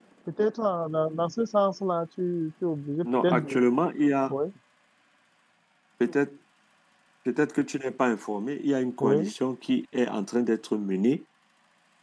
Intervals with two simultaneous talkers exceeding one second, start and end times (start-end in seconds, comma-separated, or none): none